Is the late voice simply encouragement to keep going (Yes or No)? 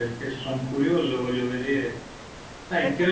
Yes